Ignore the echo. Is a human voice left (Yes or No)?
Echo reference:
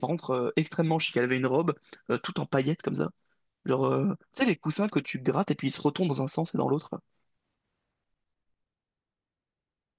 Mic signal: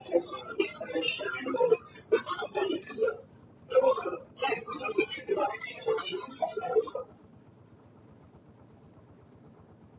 No